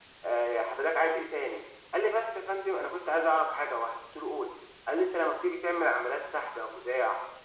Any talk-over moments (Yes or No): No